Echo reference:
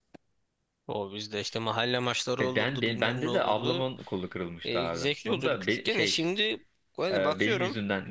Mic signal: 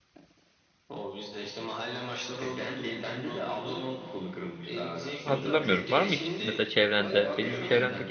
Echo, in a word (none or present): present